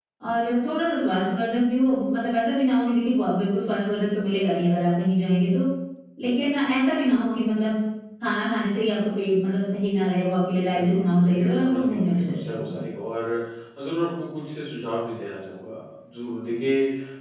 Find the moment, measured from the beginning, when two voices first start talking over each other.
11 s

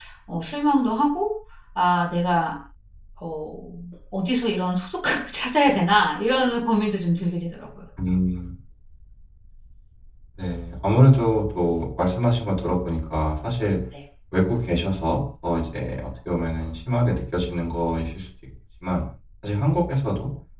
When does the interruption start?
none

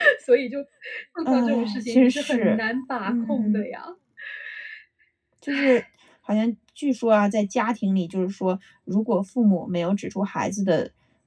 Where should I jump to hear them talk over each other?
1 s

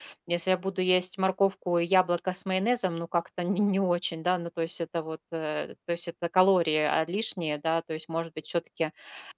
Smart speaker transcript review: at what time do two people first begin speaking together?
none

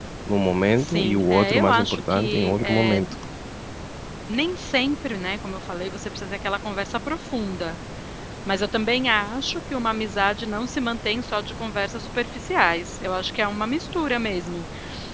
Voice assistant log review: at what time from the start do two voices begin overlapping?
1 s

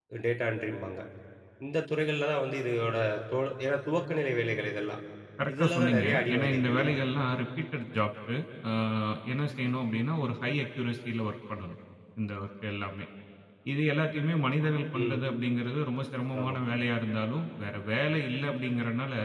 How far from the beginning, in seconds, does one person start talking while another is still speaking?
6 s

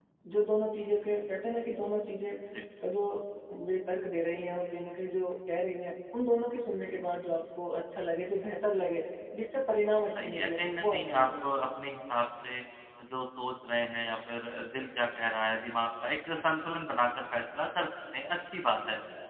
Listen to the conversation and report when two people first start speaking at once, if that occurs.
10 s

